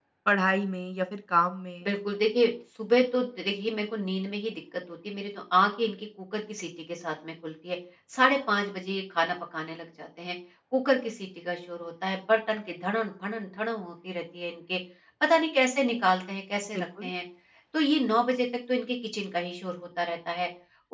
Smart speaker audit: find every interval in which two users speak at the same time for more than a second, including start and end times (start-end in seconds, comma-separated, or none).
none